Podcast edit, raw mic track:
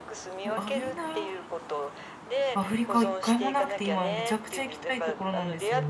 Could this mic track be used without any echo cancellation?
No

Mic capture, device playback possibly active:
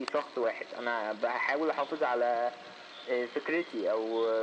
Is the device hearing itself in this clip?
Yes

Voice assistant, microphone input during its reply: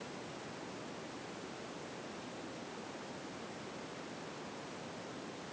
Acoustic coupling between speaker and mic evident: No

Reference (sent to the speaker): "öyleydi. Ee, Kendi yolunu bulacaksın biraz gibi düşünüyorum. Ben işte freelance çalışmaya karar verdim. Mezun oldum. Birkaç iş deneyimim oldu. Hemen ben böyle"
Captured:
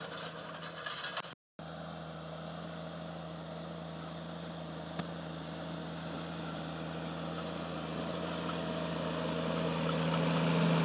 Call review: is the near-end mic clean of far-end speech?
Yes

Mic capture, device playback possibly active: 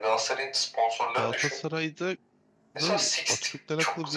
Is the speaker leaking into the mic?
Yes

